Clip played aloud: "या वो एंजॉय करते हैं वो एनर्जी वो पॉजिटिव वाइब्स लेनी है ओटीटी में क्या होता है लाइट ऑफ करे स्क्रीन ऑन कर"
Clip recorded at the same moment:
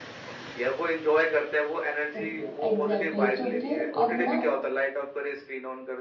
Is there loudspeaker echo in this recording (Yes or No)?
Yes